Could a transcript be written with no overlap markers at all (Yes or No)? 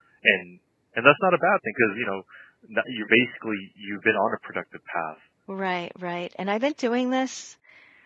Yes